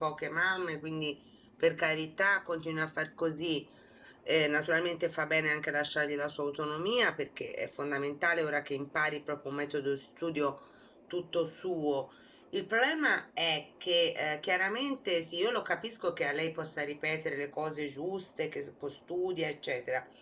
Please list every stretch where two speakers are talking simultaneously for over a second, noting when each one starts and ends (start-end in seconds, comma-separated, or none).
none